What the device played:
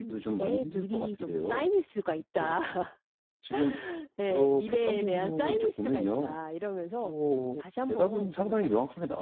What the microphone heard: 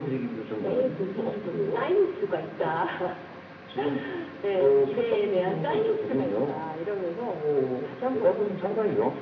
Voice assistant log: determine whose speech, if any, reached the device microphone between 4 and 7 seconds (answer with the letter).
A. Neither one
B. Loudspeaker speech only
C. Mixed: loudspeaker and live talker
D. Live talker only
B